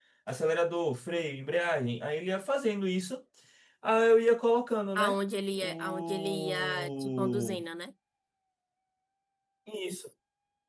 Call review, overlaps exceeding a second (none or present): present